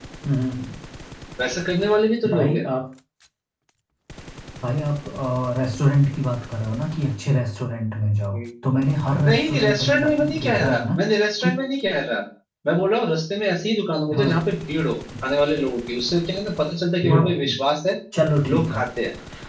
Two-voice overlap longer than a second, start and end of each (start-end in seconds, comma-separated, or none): 9.2-11.0